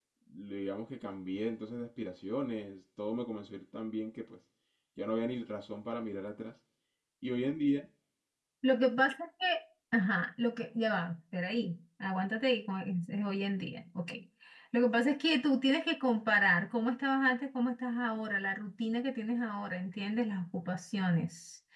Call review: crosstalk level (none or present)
none